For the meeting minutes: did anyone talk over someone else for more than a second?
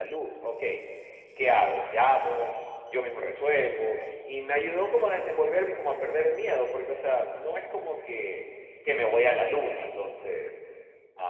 No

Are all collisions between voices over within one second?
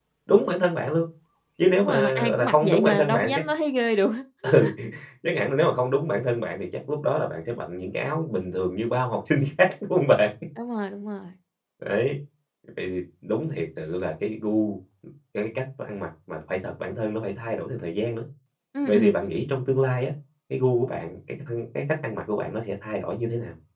No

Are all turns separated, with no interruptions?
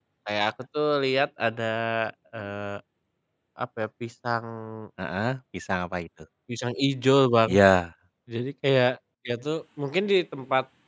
Yes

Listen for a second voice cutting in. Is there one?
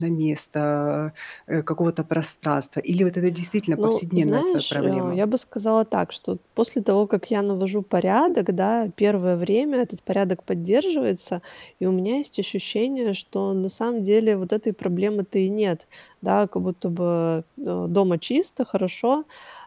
Yes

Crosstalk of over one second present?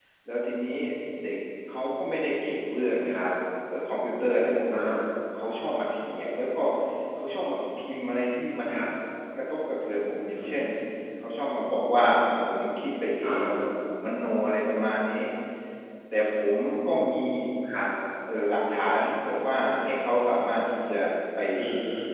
No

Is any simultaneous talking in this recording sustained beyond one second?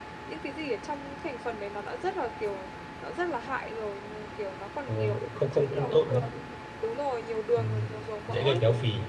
Yes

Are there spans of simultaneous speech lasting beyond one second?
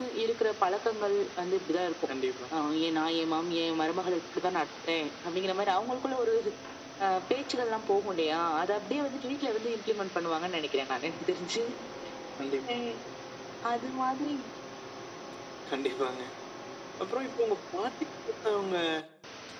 No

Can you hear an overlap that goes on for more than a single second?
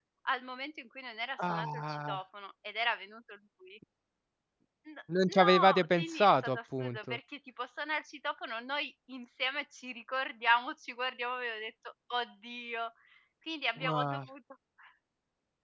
Yes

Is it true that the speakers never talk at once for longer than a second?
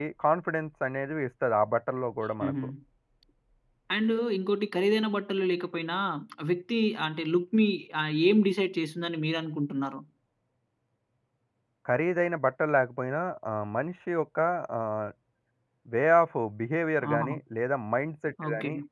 Yes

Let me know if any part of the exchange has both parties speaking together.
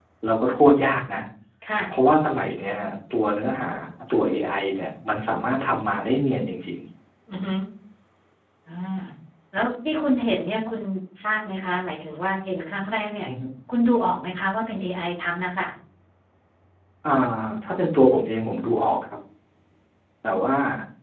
No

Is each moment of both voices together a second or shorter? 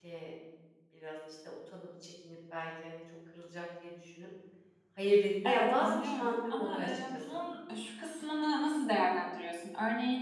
No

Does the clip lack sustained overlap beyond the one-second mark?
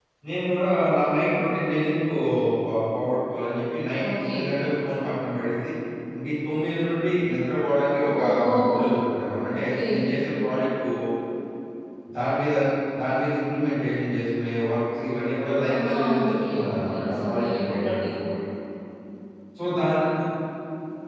No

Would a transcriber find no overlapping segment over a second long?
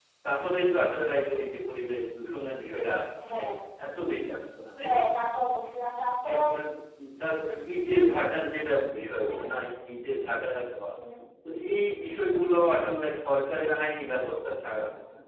Yes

